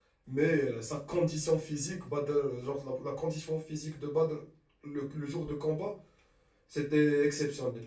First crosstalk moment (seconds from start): none

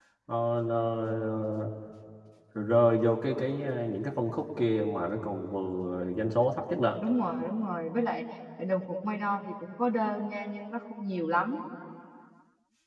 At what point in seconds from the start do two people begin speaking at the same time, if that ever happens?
none

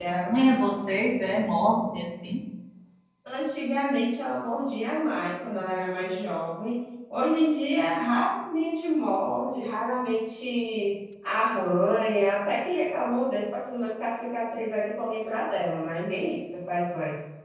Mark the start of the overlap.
none

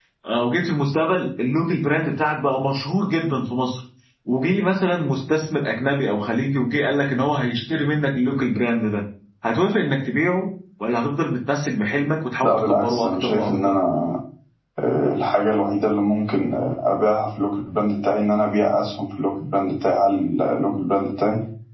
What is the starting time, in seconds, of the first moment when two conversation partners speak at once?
12.4 s

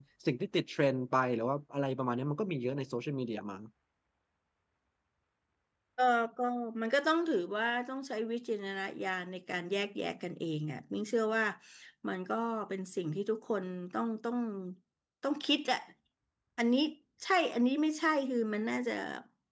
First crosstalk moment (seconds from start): none

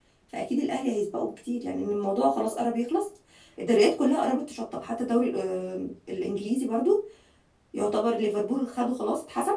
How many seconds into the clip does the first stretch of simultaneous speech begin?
none

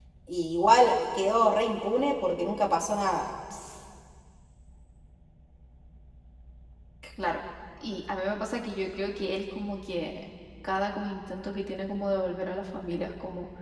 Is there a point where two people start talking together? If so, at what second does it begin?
none

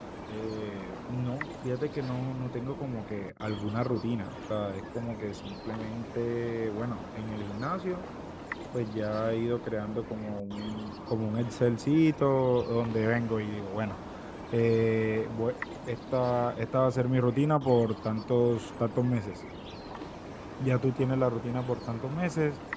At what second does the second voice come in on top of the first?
none

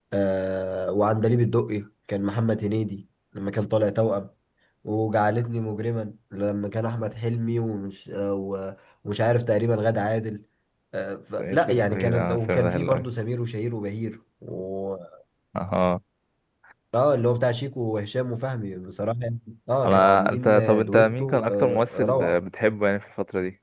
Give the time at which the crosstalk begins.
11.4 s

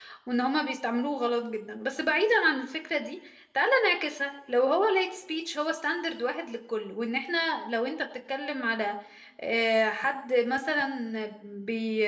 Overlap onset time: none

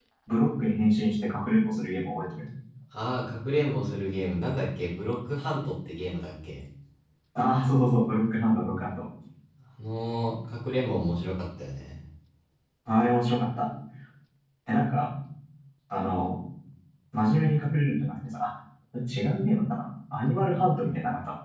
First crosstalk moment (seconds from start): none

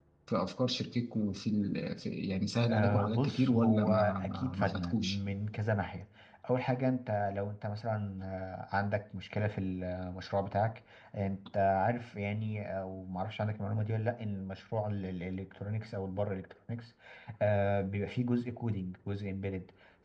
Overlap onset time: 2.7 s

